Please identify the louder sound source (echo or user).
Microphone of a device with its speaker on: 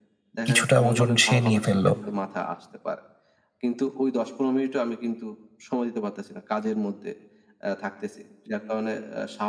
user